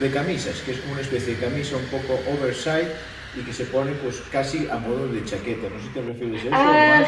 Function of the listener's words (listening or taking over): taking over